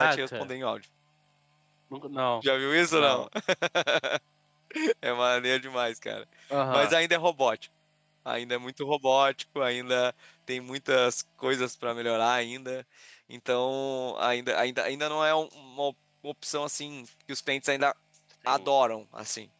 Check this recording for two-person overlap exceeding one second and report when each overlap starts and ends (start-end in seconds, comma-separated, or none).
none